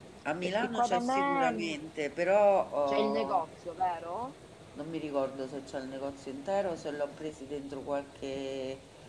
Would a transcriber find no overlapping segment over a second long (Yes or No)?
No